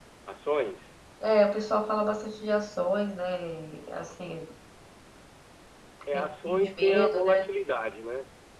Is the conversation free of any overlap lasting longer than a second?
No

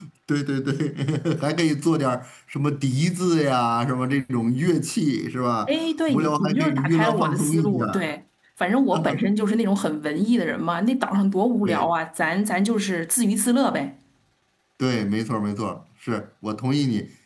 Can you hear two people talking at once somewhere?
Yes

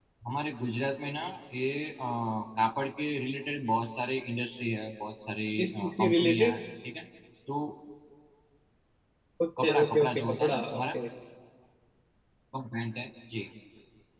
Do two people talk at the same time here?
Yes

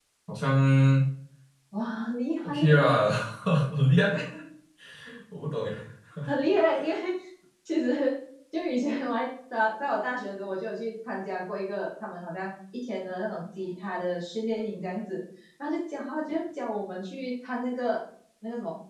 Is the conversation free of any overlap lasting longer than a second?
Yes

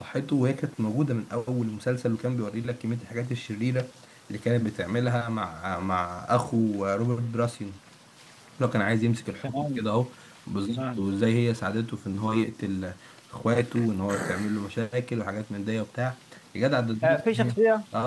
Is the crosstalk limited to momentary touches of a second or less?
Yes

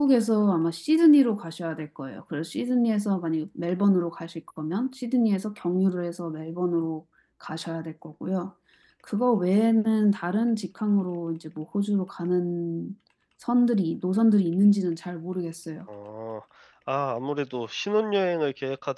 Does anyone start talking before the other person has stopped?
No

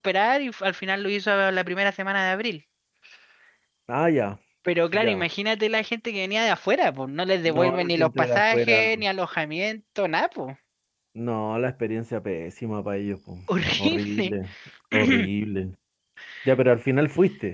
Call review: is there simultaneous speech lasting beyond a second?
Yes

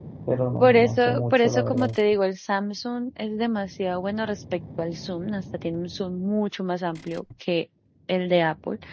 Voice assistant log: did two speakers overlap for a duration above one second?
Yes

